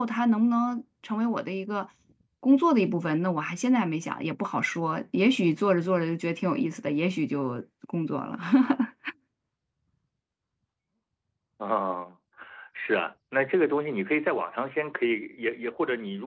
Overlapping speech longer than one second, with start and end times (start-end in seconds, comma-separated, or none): none